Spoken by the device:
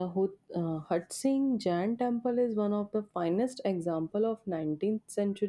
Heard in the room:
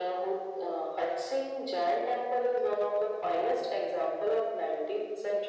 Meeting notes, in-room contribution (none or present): none